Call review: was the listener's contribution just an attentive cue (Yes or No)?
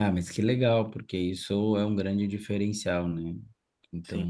Yes